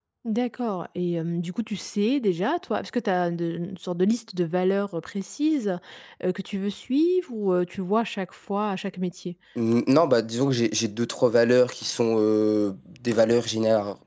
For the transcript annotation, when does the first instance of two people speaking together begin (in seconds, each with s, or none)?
none